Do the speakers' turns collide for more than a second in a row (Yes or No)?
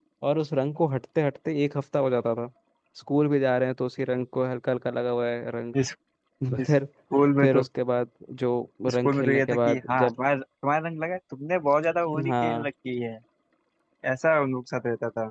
Yes